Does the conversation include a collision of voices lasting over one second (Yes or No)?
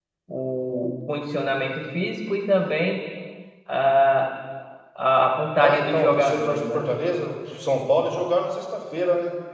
Yes